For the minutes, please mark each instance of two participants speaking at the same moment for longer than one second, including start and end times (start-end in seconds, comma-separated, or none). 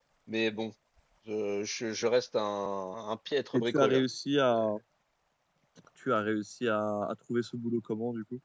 none